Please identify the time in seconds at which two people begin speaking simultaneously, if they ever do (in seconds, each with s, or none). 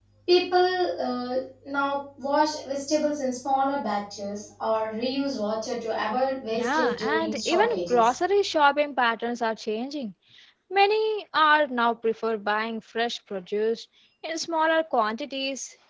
6.5 s